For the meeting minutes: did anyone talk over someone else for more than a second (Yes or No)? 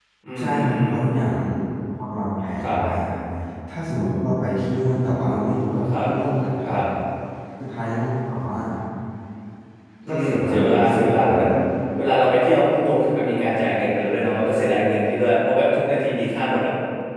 Yes